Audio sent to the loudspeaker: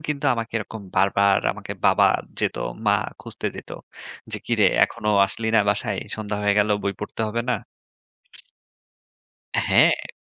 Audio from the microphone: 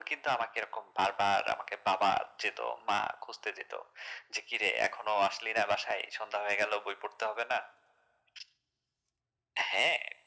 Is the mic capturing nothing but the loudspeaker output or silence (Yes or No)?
Yes